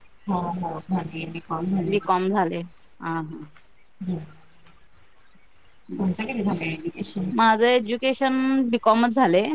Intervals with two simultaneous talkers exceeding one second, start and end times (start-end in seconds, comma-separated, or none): none